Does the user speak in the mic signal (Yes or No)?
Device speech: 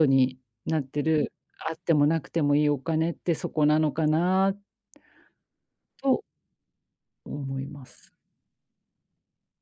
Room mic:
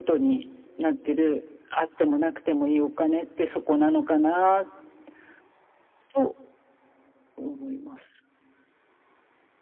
No